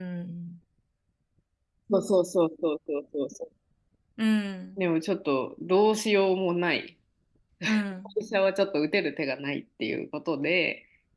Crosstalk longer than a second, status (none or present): none